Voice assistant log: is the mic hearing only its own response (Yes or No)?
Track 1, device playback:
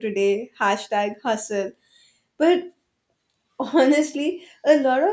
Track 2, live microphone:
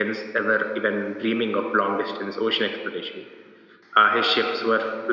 No